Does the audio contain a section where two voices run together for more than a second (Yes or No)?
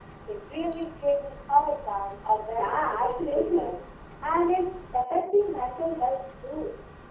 Yes